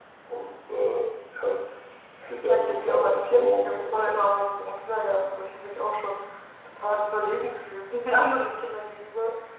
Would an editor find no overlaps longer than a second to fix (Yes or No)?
No